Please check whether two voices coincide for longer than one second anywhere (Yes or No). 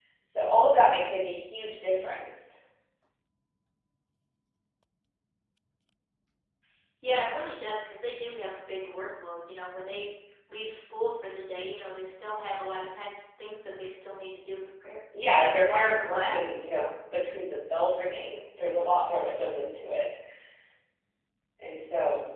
Yes